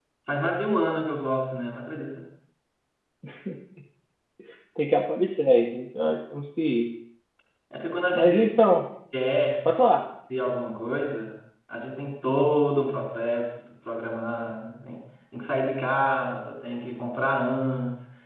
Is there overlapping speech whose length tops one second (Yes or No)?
No